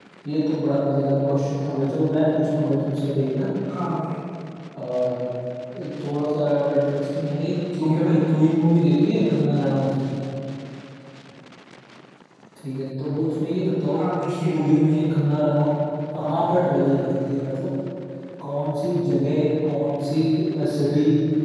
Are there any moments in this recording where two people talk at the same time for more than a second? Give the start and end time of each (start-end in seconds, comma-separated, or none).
14.0-15.2